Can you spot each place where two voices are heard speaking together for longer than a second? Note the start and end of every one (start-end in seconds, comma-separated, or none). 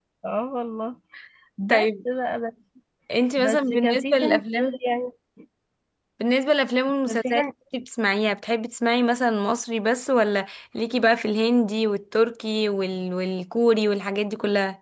3.4-4.8